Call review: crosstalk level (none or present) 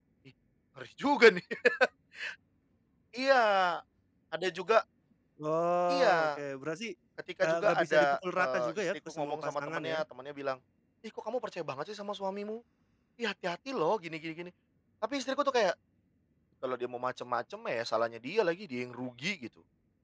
present